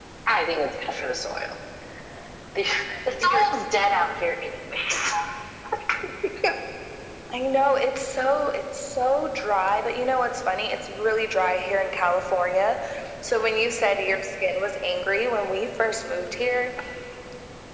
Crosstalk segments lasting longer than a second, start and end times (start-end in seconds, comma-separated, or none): none